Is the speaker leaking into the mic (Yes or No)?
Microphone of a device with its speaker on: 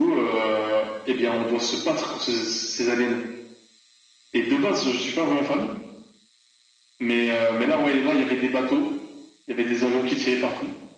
Yes